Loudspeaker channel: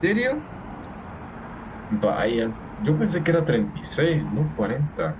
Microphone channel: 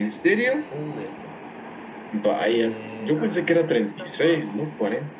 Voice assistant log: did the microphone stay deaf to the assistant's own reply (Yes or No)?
No